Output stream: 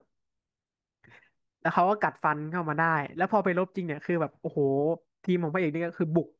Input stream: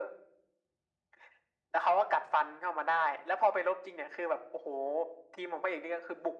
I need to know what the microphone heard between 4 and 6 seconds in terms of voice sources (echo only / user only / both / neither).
echo only